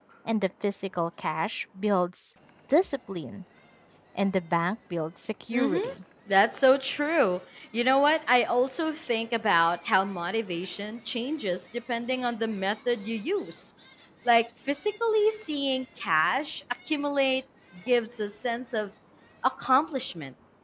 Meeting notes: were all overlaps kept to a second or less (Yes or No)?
Yes